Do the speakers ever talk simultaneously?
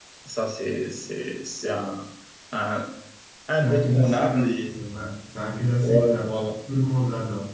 Yes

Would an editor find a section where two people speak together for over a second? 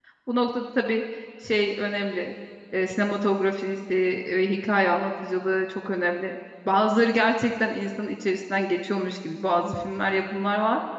No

